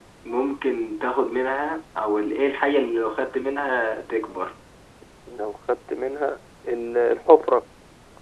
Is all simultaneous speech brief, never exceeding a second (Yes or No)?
Yes